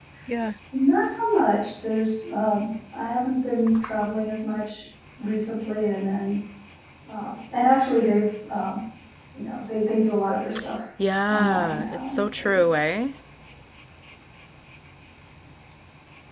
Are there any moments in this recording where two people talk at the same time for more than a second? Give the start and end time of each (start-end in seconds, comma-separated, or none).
11.3-12.6